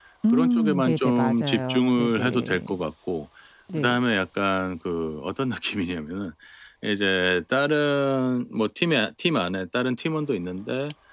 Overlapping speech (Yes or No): Yes